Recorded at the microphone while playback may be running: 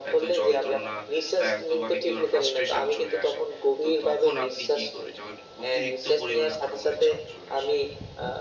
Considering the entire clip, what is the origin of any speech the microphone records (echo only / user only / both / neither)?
both